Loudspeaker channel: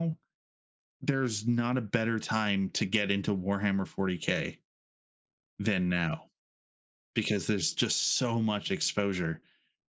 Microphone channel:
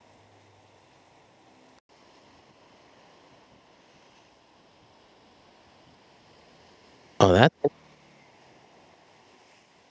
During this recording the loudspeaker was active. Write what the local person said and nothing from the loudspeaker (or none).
Oh, that's